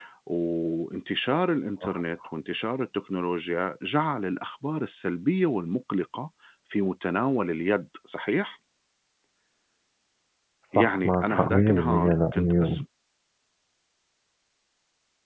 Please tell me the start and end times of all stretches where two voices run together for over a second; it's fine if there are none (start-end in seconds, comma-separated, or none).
10.7-12.6